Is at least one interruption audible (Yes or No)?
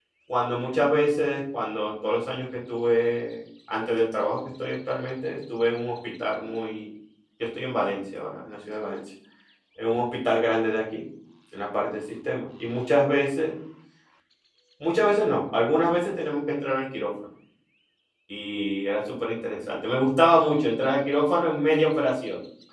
No